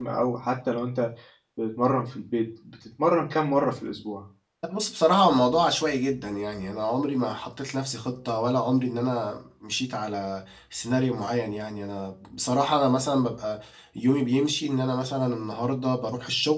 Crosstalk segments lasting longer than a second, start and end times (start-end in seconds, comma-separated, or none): none